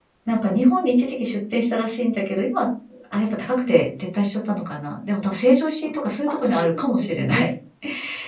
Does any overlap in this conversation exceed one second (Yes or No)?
Yes